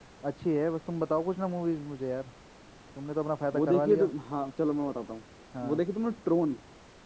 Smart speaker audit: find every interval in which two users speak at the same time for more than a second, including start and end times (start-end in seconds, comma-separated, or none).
none